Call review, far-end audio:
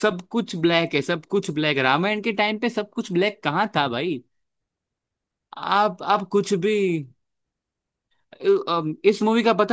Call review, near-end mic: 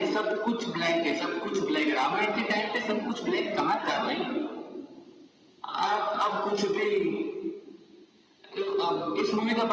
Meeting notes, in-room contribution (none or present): none